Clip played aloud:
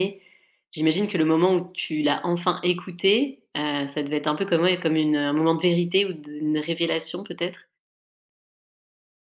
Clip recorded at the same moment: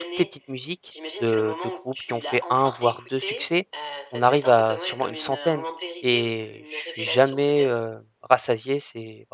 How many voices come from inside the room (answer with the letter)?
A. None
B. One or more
B